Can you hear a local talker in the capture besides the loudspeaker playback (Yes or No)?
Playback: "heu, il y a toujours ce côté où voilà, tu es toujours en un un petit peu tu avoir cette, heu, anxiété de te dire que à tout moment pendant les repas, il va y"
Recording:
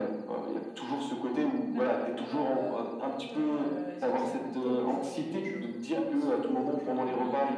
Yes